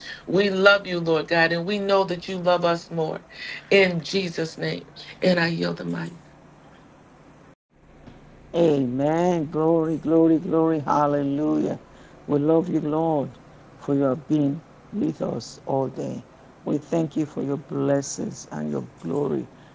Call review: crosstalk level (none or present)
none